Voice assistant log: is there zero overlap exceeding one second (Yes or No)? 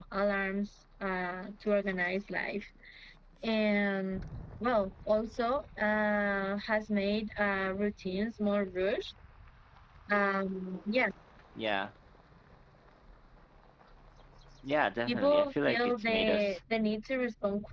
No